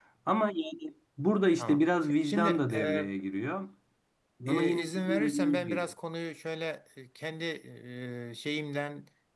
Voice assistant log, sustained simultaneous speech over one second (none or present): present